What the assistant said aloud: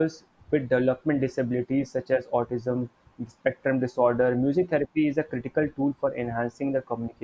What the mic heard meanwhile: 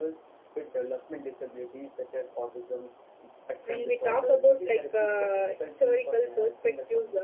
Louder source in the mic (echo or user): user